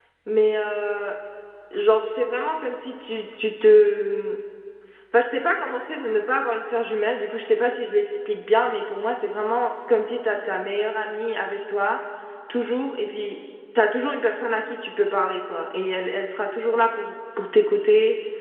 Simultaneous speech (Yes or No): No